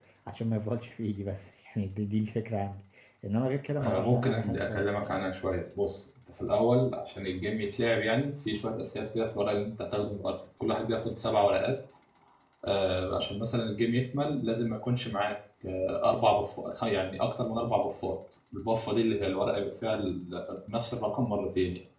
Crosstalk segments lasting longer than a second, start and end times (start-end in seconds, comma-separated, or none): 3.8-5.2